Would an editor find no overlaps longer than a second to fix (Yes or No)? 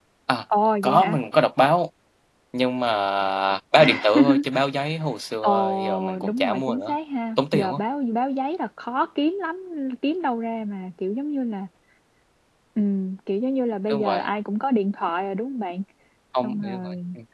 No